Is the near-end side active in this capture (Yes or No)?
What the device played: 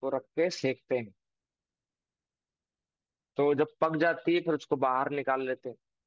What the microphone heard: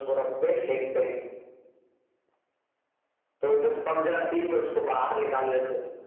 No